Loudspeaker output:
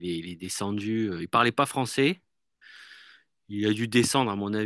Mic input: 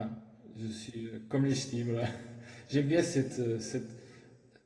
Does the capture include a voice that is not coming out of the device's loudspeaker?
Yes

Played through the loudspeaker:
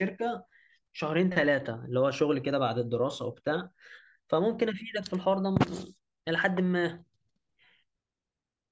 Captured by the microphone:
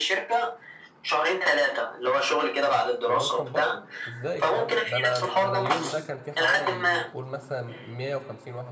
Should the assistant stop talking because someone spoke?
Yes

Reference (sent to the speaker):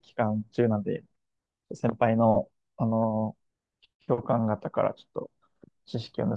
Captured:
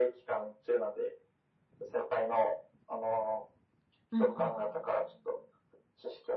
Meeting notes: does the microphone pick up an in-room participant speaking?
Yes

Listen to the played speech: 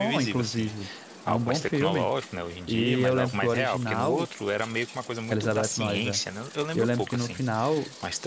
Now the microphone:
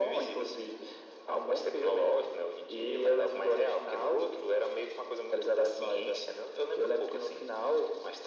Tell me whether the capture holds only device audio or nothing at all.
Yes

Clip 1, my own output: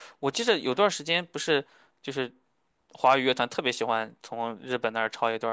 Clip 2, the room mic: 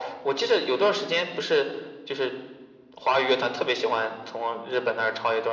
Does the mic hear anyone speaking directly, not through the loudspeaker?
No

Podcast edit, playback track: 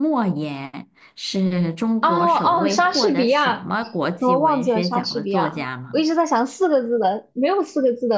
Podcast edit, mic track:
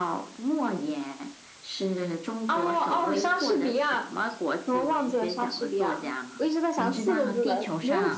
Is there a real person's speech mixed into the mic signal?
Yes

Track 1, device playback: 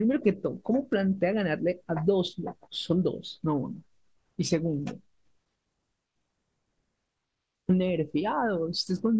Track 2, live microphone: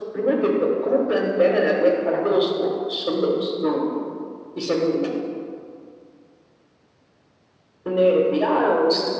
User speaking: No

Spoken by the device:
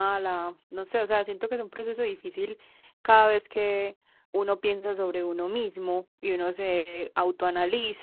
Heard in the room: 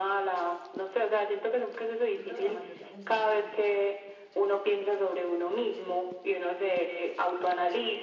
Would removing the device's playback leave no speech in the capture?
No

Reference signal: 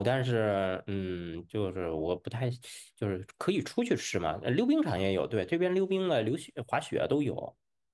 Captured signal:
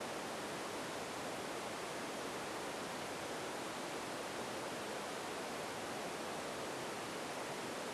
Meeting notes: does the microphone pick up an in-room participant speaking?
No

